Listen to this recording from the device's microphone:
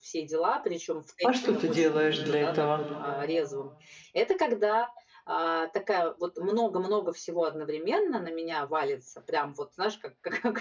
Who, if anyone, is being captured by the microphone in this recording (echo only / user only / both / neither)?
both